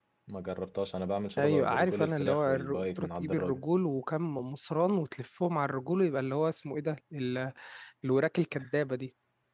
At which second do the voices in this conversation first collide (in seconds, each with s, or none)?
1.4 s